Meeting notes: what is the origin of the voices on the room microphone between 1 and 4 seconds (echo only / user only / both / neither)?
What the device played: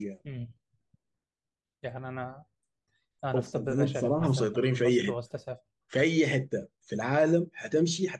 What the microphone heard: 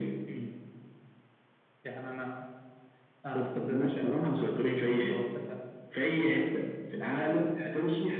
echo only